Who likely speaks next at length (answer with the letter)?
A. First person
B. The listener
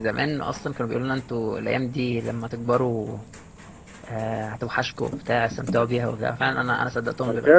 B